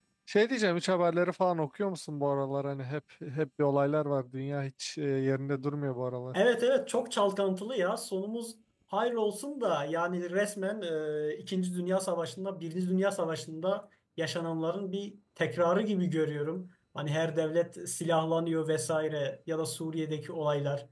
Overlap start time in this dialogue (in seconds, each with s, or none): none